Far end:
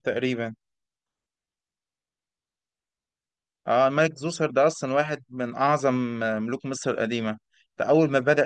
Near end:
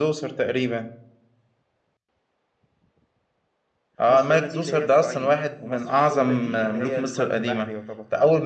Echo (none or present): present